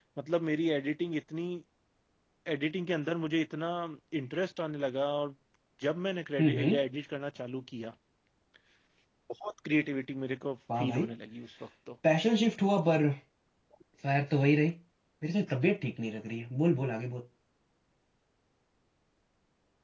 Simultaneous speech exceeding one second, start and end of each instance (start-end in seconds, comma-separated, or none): none